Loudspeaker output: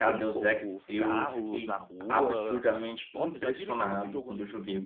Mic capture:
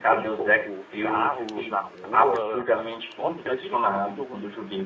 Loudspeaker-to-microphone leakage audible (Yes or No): Yes